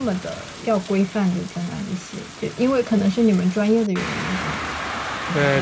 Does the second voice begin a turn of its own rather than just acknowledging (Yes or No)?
Yes